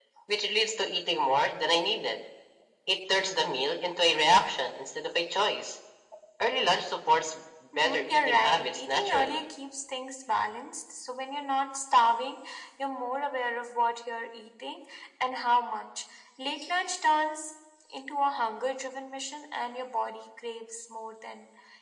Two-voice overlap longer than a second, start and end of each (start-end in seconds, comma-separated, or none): 7.8-9.4